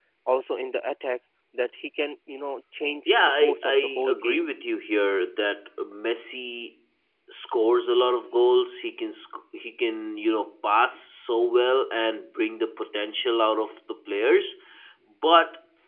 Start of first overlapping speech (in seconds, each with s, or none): 3.1 s